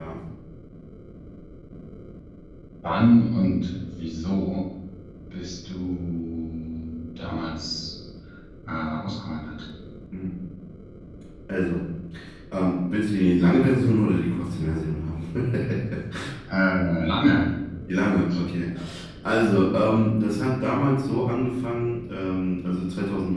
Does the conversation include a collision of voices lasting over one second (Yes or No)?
No